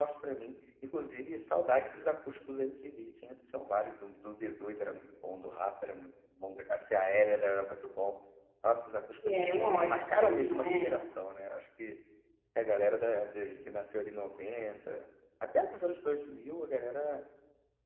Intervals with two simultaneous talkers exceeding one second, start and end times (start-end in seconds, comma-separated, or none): 9.3-10.9